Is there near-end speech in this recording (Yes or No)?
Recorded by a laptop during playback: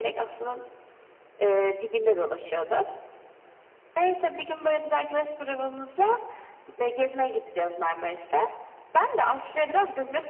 No